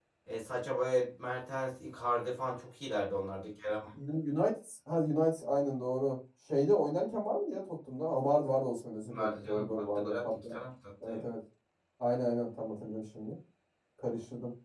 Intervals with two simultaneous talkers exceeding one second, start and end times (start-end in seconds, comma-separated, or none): 9.1-10.3